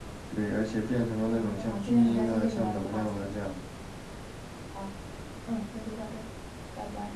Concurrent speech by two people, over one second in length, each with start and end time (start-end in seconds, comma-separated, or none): 1.2-3.3